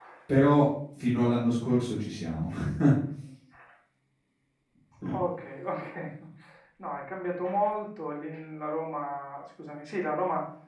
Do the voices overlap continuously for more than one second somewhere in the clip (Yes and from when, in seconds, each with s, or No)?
No